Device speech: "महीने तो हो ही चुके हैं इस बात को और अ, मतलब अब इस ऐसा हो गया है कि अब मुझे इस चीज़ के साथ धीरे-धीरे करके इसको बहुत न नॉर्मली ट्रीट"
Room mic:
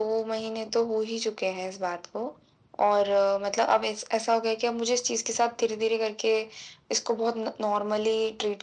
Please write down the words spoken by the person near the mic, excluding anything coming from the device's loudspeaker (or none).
none